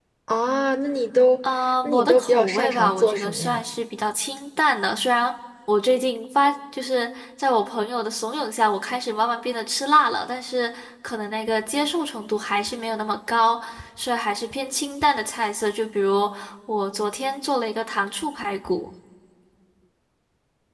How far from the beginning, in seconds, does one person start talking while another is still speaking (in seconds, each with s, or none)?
1.8 s